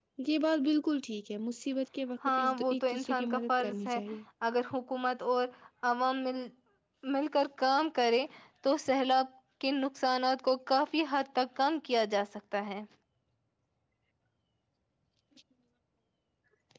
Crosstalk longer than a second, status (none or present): present